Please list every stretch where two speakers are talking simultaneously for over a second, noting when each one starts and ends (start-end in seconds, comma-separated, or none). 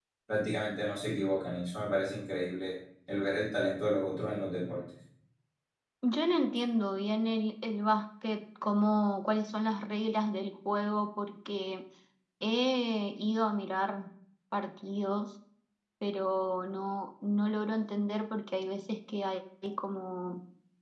none